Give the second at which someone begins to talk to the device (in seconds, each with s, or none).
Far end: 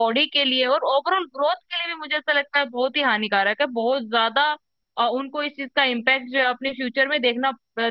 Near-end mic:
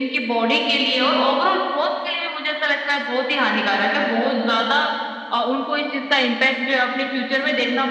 none